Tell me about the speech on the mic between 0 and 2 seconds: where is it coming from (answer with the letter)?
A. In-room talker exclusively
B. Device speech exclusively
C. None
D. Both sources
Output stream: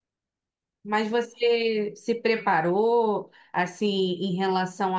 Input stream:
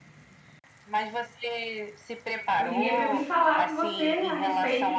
B